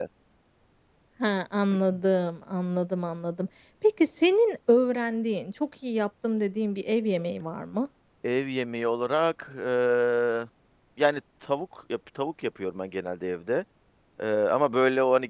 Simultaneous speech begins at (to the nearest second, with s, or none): none